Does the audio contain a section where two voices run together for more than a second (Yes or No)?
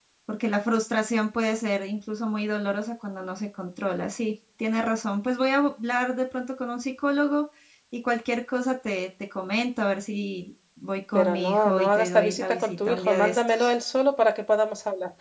Yes